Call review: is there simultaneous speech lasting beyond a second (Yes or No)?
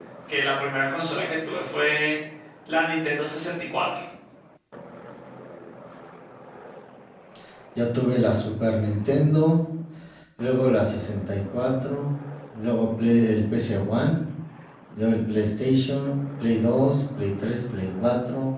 No